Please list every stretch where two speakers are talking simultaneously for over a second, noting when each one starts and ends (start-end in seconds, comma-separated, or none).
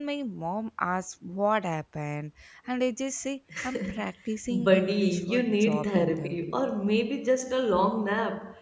4.5-6.6